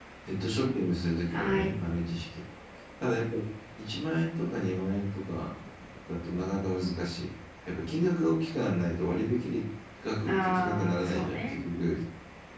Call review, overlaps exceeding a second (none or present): present